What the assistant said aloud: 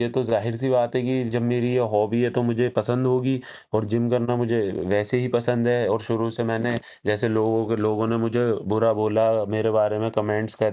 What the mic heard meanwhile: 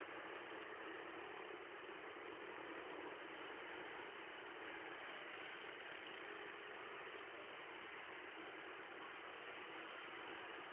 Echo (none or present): none